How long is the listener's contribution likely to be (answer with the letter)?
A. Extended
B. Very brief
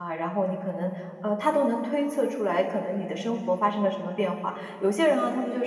B